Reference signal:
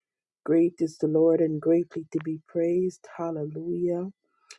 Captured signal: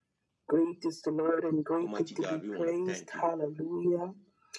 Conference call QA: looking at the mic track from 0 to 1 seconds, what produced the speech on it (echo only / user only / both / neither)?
echo only